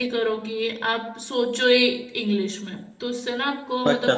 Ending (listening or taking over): listening